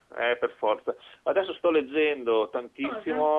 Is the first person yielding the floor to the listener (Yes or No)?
No